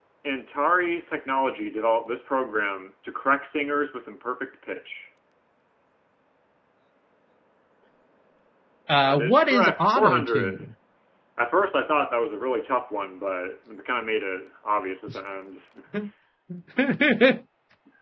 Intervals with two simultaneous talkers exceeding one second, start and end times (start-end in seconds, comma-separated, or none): 8.9-10.7